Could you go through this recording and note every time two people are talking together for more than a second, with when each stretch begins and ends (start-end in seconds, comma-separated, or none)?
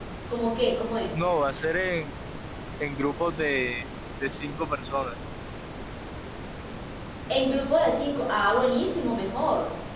none